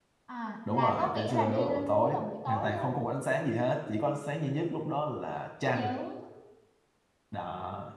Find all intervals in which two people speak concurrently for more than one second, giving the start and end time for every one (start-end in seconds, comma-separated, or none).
0.7-3.0